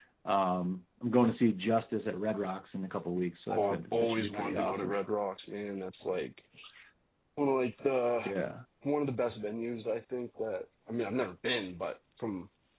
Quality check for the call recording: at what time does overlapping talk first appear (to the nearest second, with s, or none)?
4 s